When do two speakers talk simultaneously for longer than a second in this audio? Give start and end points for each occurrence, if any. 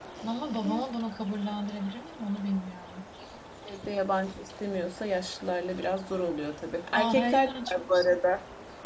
6.9-8.2

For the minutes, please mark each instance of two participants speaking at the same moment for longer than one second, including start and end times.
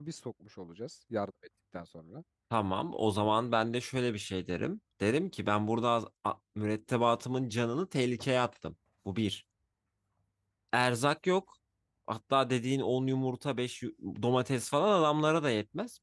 none

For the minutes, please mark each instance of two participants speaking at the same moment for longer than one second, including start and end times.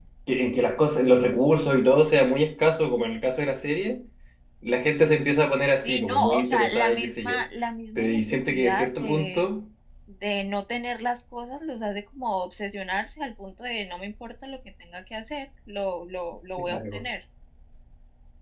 5.8-7.3, 8.0-9.5

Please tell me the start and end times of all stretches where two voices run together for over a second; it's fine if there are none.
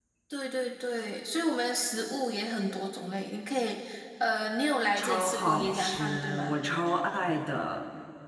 5.0-6.6

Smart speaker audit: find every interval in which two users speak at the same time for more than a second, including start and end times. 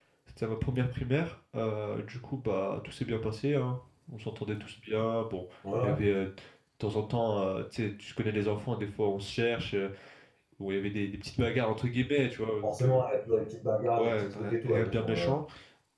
14.0-15.4

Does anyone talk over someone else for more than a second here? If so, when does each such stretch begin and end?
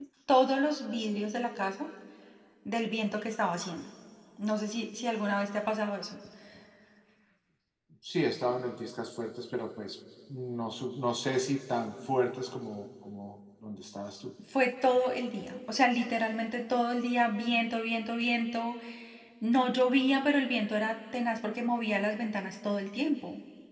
none

